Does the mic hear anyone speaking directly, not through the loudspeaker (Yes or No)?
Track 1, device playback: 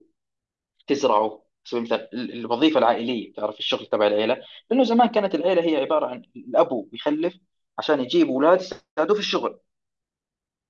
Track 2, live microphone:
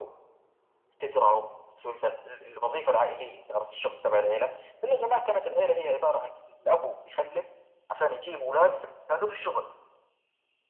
No